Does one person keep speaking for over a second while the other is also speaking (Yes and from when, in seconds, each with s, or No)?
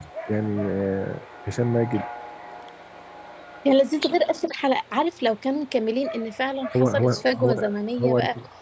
Yes, from 6.7 s